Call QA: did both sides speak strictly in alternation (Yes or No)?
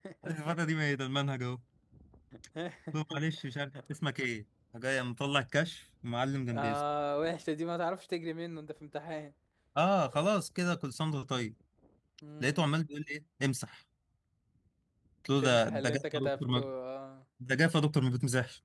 No